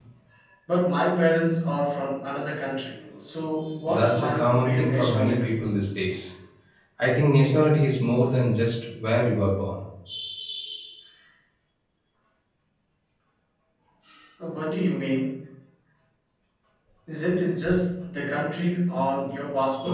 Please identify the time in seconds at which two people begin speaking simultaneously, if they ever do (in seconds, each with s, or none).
3.9 s